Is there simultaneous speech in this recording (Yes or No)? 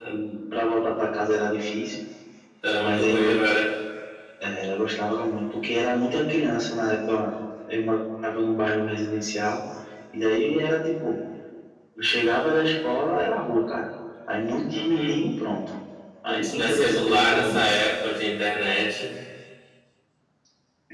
Yes